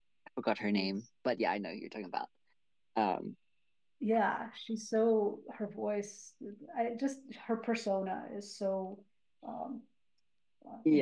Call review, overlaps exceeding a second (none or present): none